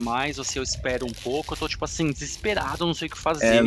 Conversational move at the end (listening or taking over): taking over